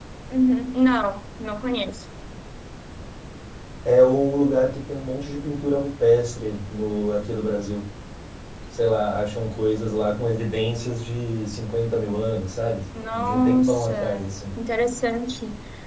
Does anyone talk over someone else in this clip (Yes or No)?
Yes